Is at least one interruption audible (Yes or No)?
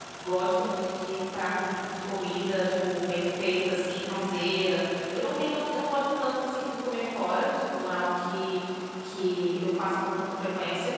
No